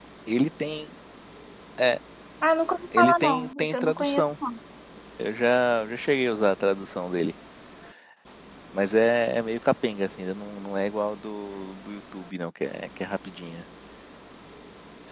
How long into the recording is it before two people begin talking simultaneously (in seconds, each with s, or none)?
3.0 s